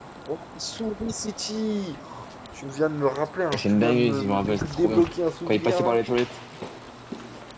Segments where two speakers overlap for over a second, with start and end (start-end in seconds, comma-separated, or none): 3.5-5.0